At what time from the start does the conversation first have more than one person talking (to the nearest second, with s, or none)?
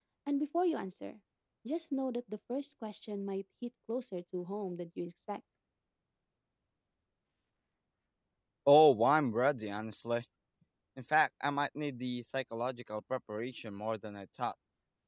none